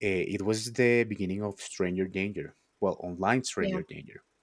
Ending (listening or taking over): listening